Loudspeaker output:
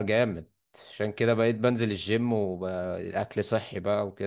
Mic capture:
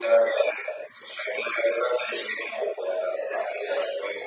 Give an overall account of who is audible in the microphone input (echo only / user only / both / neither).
echo only